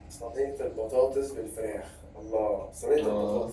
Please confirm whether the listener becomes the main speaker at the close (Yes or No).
No